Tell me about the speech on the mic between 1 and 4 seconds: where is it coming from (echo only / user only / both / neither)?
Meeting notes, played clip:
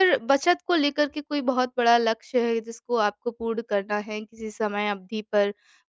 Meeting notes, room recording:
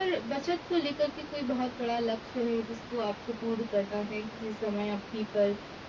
echo only